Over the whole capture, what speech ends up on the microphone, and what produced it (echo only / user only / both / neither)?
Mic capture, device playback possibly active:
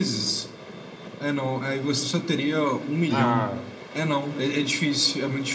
both